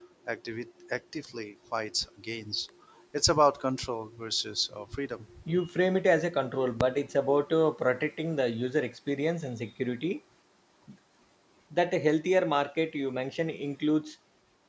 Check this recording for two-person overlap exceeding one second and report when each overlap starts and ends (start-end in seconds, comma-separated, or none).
none